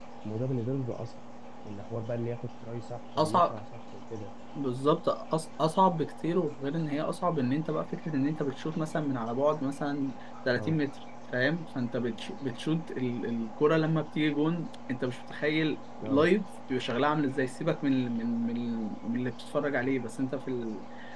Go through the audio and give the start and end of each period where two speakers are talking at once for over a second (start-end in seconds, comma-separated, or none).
none